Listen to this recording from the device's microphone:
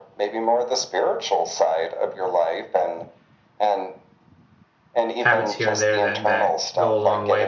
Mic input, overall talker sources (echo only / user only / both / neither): both